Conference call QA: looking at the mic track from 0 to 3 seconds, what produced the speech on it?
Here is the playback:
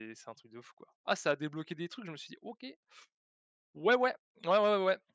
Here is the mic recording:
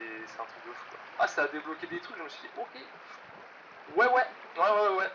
echo only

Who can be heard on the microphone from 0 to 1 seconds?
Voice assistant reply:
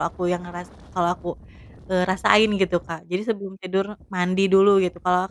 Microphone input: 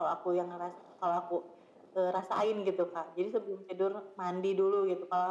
echo only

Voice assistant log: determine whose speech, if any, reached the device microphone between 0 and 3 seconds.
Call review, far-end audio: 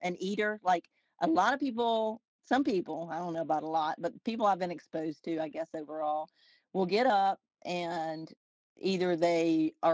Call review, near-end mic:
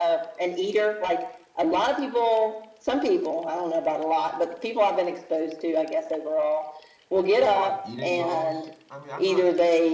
echo only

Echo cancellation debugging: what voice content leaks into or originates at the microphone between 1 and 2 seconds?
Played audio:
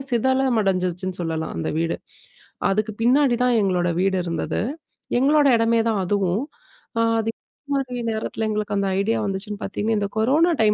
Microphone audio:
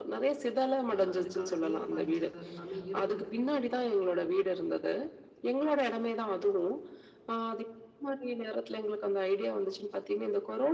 both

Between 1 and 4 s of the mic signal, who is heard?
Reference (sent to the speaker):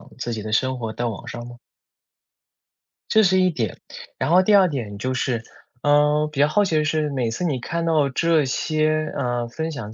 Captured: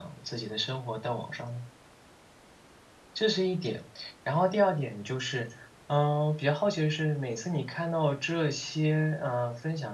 echo only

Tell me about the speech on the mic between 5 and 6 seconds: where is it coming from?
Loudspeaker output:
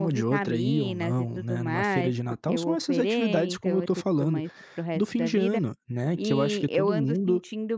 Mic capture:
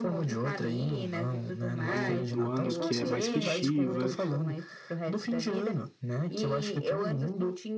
echo only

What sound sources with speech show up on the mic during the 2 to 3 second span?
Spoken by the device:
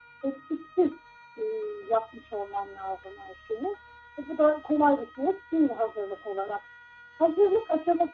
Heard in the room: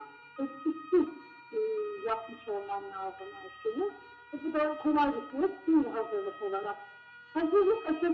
echo only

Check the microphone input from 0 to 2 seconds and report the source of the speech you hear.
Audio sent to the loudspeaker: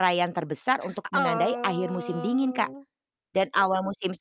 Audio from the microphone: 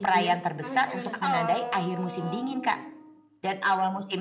both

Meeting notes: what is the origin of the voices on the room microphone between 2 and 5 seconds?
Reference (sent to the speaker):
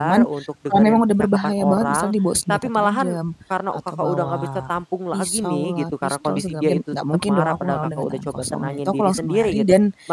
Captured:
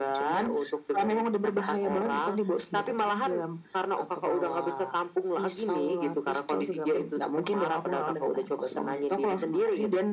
echo only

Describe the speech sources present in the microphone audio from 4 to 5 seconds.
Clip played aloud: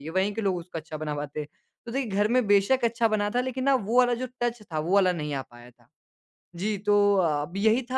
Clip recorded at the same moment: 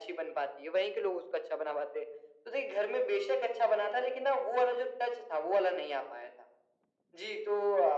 echo only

